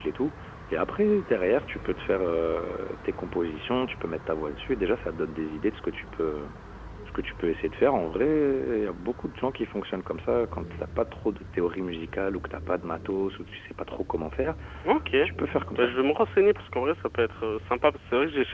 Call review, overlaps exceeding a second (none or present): none